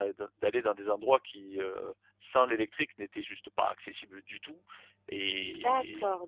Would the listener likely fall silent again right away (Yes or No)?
No